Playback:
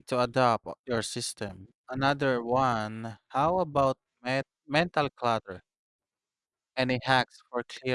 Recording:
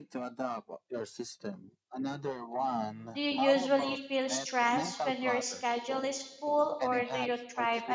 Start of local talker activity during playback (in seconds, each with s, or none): 3.1 s